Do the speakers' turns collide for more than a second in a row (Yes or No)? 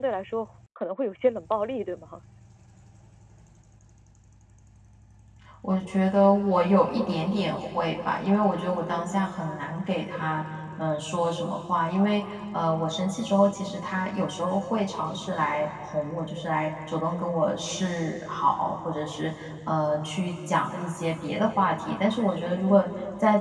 No